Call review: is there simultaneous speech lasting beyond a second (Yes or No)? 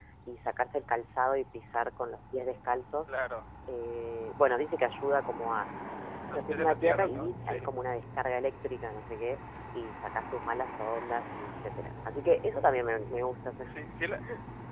Yes